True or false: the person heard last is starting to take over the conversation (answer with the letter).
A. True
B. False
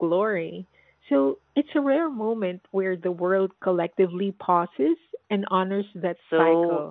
A